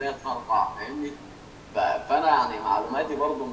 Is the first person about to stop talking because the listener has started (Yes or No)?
No